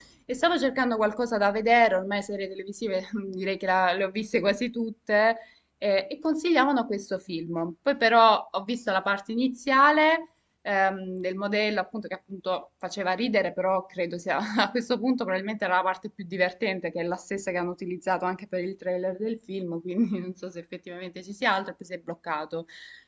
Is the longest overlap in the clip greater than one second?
No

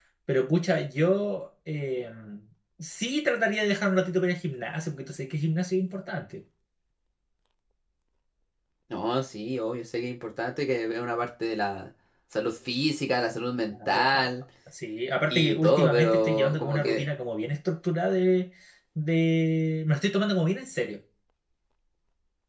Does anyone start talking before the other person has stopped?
Yes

